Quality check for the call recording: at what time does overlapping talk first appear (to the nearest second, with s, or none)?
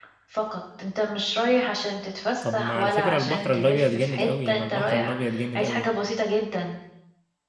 2 s